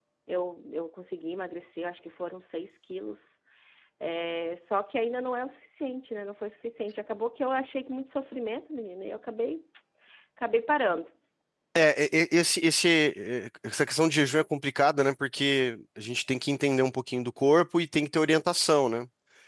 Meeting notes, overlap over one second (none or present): none